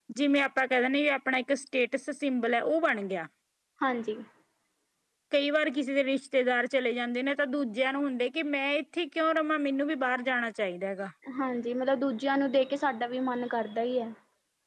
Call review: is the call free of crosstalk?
Yes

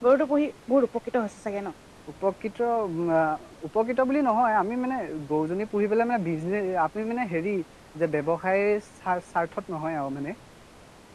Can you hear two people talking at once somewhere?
No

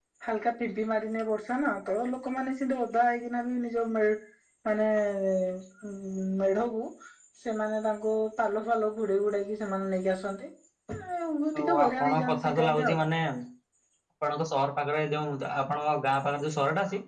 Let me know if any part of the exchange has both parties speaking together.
Yes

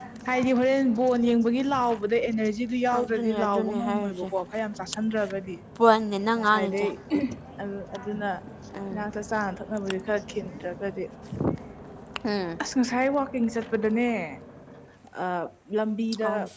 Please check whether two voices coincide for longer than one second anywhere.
Yes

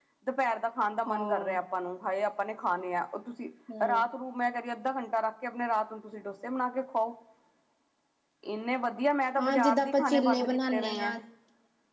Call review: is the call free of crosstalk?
No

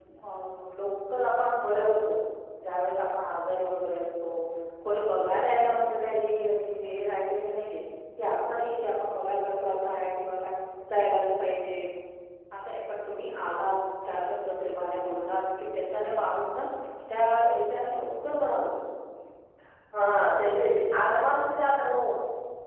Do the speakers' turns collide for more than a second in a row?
No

